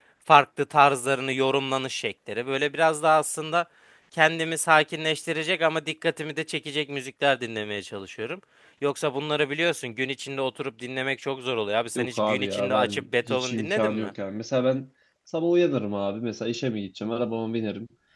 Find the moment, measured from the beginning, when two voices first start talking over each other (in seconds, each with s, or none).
11.9 s